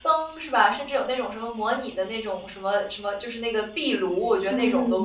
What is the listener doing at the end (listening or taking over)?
taking over